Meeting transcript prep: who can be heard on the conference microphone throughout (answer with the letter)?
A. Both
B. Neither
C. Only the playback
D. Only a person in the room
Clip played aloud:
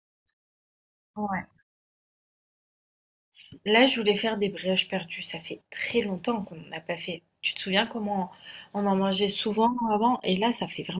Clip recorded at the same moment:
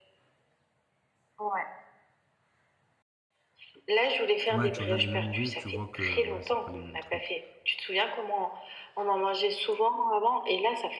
A